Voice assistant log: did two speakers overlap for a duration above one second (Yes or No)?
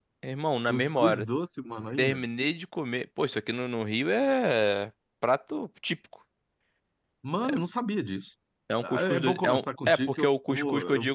Yes